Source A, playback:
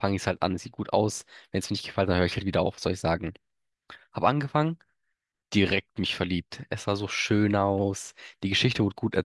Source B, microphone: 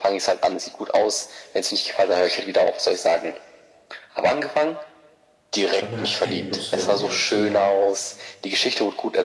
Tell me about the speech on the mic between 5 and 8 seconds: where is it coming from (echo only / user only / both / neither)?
both